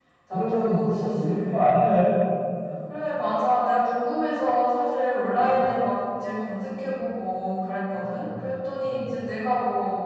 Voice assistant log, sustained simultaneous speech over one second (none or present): present